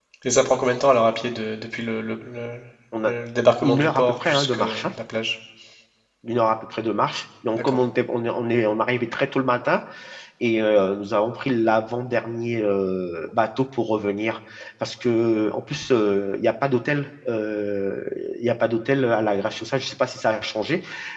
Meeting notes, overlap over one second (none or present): present